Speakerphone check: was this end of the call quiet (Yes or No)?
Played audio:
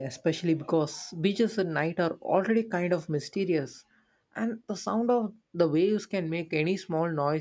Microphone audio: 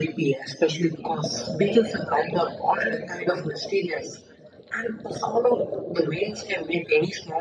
Yes